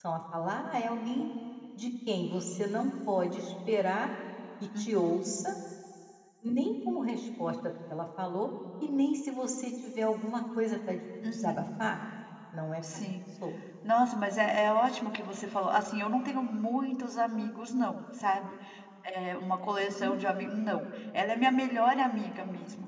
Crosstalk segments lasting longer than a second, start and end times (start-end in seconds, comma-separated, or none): none